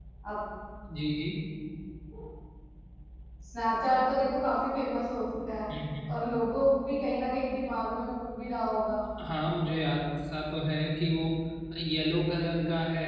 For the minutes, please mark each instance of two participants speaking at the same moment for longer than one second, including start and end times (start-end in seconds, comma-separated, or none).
none